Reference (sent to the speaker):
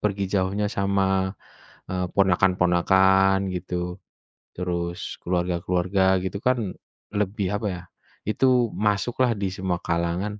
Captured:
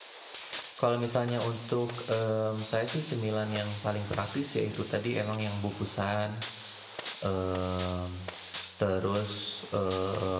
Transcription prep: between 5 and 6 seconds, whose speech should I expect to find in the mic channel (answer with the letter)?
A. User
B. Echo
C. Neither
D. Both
A